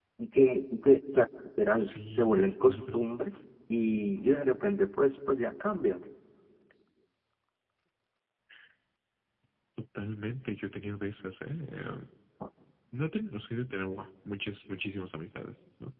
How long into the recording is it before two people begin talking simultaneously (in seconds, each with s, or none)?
1.8 s